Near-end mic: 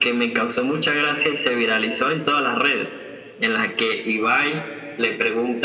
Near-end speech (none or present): none